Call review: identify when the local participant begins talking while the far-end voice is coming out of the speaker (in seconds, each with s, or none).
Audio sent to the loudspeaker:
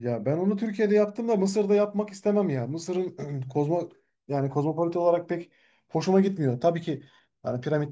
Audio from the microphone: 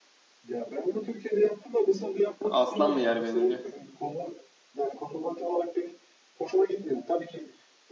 2.4 s